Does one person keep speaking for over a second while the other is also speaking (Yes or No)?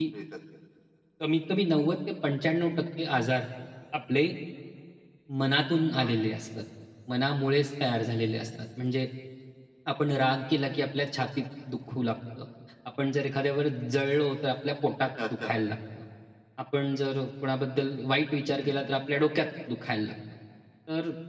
No